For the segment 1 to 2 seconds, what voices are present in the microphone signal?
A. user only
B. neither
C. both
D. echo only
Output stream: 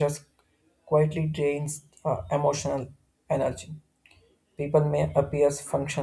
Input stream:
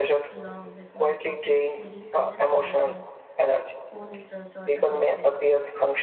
C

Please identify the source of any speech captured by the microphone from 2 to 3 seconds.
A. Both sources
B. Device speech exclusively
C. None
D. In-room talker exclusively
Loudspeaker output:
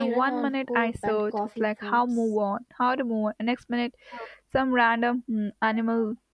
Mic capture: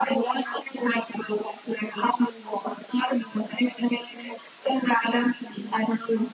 B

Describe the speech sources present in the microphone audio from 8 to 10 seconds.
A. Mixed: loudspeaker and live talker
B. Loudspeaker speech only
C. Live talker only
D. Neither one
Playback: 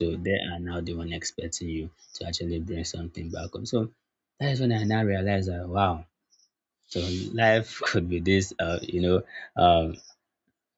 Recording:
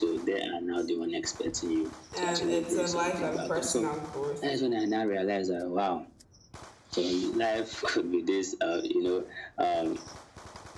B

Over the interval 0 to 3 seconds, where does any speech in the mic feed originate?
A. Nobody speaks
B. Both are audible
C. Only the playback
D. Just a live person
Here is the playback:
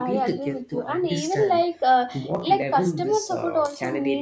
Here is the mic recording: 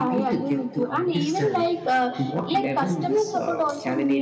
C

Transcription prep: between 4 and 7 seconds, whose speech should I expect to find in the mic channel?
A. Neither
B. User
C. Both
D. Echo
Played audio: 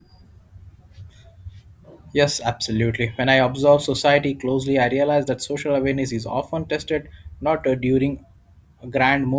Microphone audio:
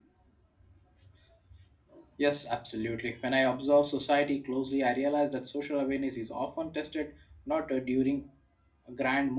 D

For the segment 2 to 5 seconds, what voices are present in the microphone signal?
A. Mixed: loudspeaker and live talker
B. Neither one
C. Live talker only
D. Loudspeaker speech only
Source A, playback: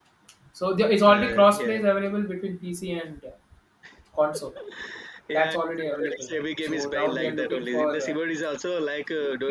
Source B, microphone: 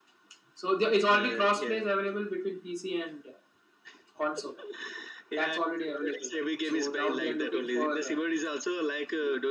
D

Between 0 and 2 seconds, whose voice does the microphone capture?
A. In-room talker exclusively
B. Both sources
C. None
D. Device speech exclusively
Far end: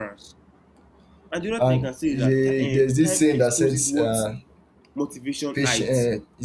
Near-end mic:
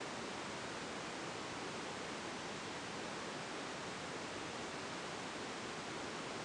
C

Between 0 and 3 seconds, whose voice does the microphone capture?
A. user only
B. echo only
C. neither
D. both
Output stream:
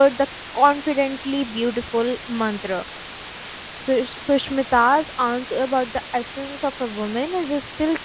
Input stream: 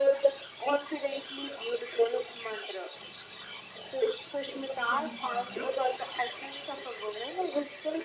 B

